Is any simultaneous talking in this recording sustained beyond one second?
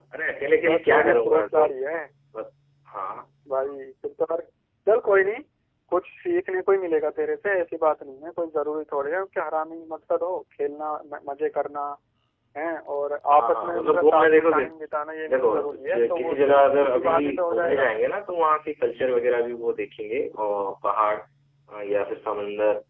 Yes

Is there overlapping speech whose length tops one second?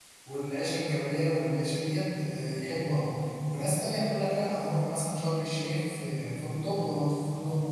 No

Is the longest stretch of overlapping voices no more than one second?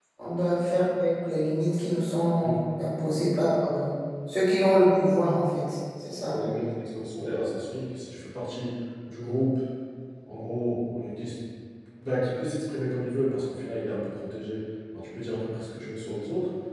Yes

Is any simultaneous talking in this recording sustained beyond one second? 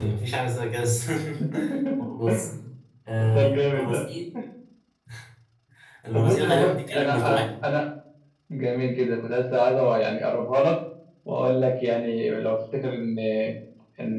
Yes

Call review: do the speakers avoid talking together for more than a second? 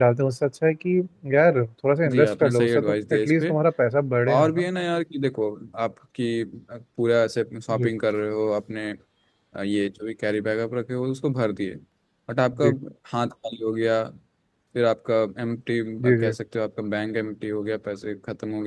No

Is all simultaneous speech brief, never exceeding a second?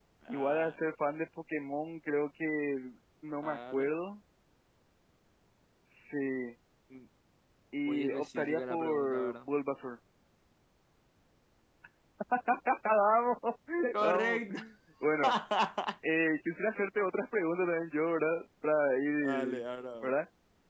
No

